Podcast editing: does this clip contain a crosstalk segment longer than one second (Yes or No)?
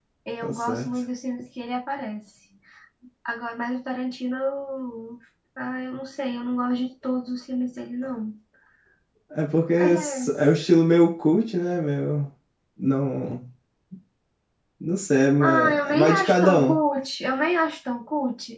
Yes